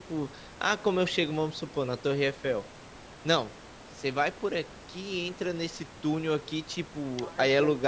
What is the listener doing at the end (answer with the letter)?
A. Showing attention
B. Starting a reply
A